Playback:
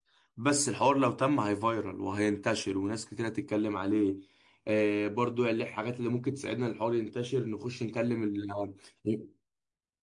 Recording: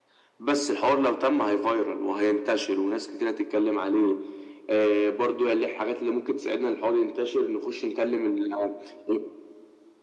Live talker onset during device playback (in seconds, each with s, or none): none